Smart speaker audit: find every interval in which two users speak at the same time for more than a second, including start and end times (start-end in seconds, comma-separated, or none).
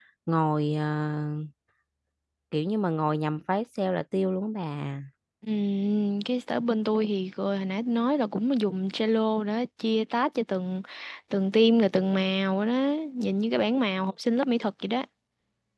none